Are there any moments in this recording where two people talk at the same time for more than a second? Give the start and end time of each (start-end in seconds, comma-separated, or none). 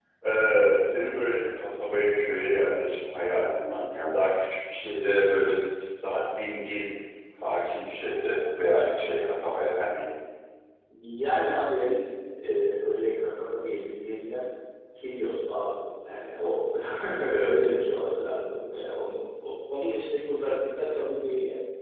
none